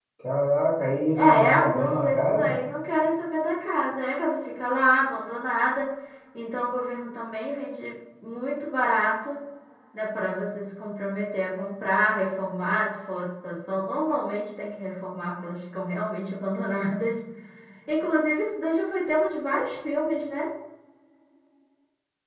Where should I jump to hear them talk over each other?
1.1 s

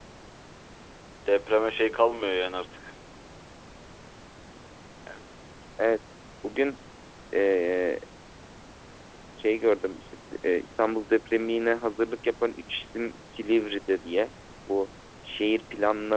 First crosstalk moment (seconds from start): none

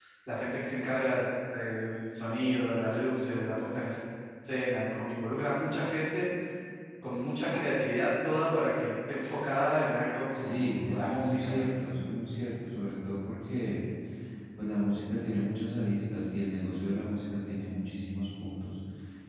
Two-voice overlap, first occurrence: 10.3 s

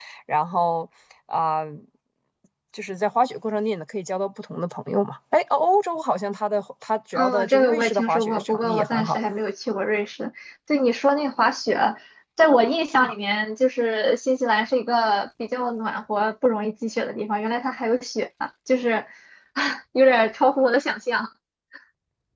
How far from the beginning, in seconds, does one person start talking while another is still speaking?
7.1 s

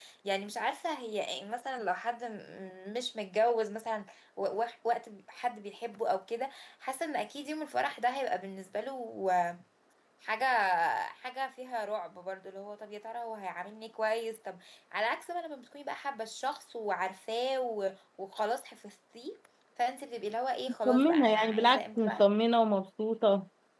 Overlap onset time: 20.9 s

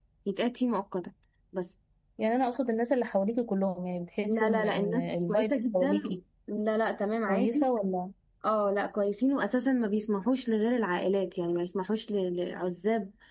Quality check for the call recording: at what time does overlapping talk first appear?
4.2 s

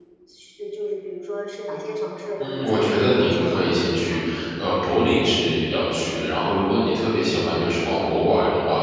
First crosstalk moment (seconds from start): 2.4 s

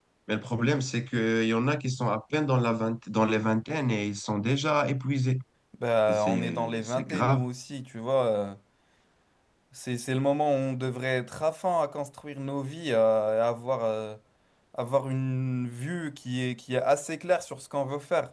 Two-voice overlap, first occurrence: 6.1 s

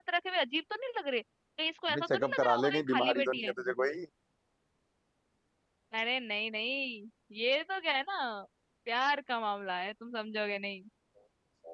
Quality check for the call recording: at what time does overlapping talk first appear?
1.9 s

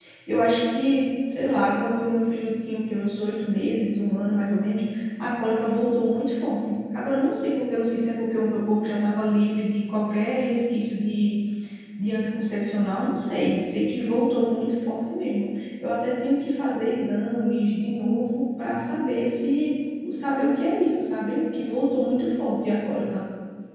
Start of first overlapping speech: none

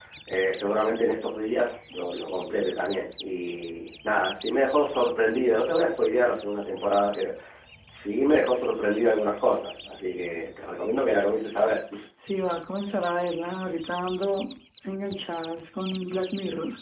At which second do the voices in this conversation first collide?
none

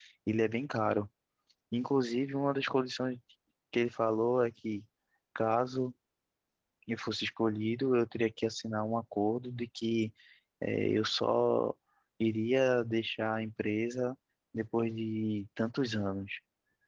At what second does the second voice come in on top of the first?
none

